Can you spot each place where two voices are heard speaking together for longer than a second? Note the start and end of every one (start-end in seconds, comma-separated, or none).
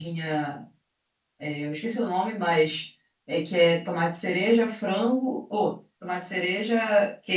none